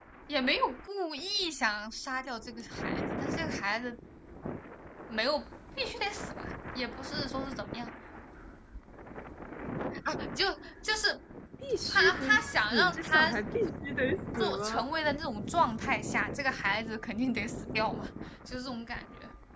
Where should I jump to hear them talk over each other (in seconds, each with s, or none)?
11.9 s